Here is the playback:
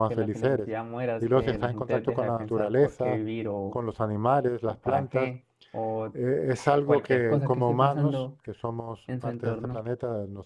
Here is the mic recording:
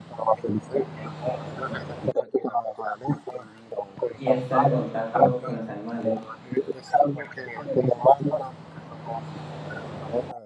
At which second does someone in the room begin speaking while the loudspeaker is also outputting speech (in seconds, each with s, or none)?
4.1 s